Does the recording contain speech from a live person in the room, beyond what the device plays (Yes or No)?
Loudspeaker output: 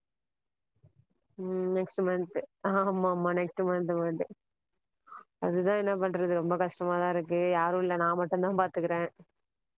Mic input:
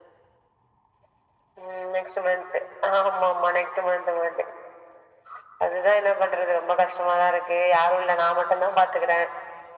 No